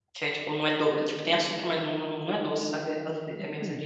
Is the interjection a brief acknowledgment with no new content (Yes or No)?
No